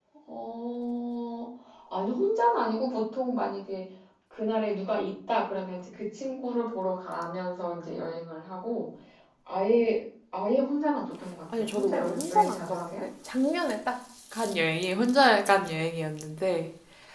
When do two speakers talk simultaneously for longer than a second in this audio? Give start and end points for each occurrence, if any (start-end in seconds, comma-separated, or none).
11.5-13.0